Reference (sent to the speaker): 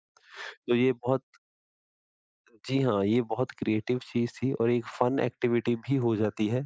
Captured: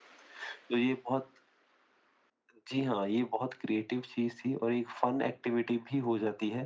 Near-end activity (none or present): none